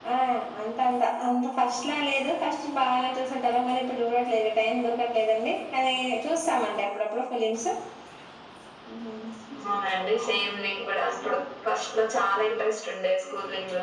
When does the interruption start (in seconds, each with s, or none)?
none